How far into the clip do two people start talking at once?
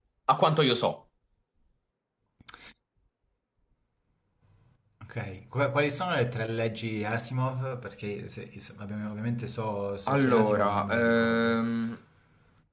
10.1 s

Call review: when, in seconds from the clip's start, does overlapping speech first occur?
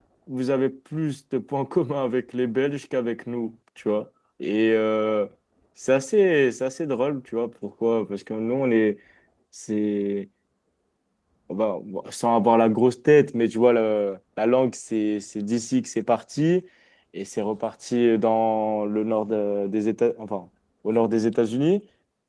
none

